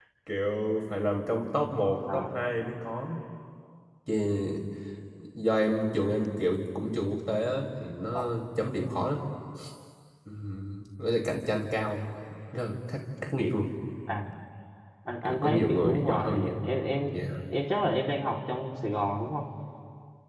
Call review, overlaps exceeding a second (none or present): present